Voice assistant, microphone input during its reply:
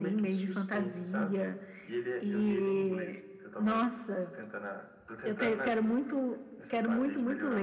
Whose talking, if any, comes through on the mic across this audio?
echo only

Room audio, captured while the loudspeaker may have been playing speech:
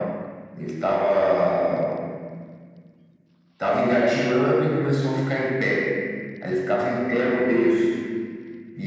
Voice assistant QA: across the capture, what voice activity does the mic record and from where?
echo only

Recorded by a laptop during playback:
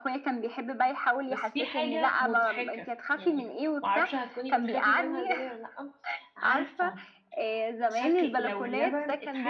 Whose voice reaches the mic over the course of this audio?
both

